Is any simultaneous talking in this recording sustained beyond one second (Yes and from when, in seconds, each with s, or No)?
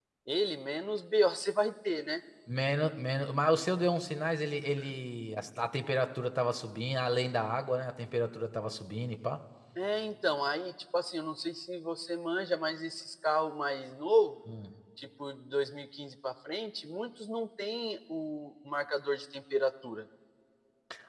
No